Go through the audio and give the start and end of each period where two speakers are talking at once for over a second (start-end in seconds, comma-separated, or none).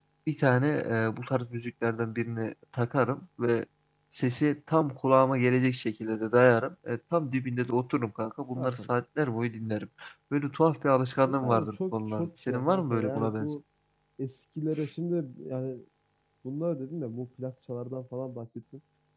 11.2-13.5